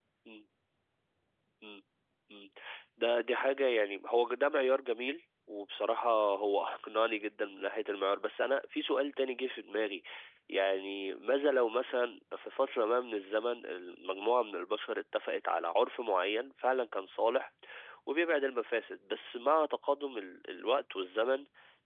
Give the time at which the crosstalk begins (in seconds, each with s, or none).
none